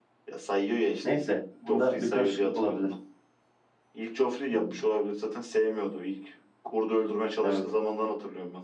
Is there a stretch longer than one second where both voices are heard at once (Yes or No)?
Yes